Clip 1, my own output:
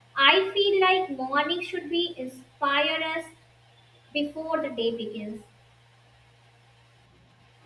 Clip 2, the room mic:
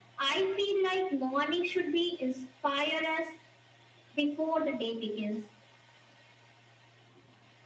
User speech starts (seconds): none

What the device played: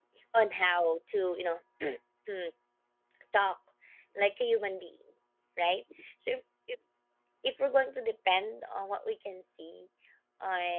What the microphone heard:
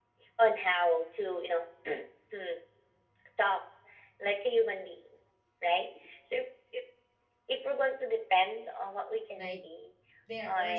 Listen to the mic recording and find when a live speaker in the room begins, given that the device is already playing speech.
9.4 s

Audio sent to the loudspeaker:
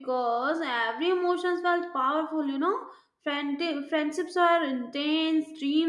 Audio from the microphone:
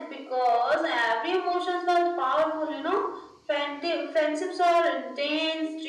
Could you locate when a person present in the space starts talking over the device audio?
none

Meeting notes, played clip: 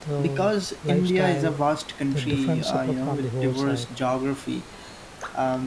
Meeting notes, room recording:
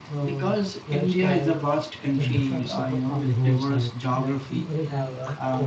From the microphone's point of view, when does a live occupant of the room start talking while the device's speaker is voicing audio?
4.1 s

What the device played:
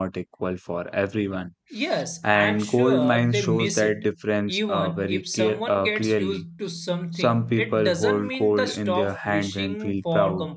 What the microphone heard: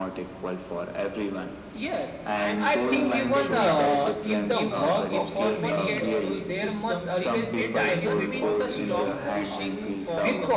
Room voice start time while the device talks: 2.6 s

